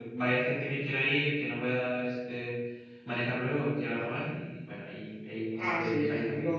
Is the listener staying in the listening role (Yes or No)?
No